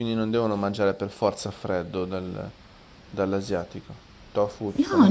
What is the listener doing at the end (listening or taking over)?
taking over